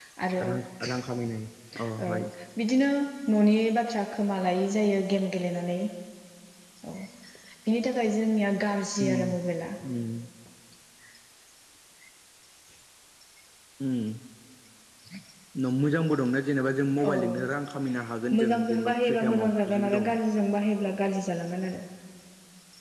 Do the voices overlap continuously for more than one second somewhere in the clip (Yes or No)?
Yes